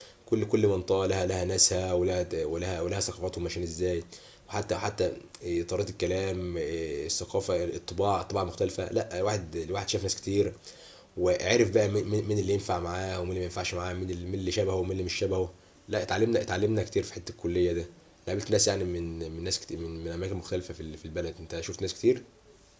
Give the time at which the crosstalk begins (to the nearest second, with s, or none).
none